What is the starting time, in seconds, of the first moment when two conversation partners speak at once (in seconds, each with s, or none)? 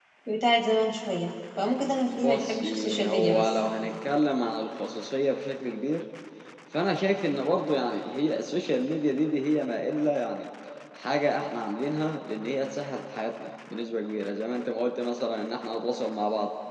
2.1 s